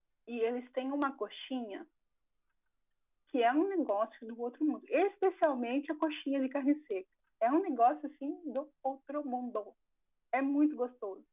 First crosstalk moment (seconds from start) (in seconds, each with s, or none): none